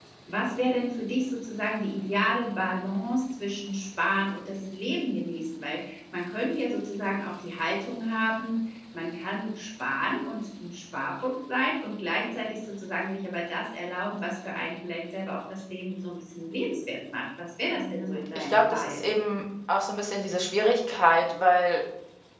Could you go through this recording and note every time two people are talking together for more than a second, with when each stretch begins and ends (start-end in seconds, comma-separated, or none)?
17.8-19.0